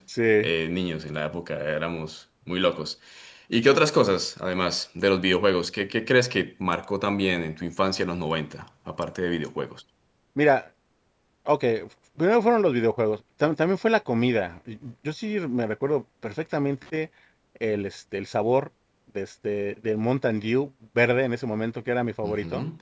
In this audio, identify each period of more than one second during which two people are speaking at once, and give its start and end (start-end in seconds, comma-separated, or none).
none